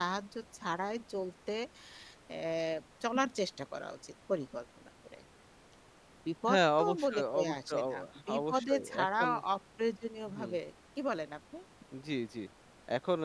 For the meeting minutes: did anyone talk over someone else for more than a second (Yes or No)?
Yes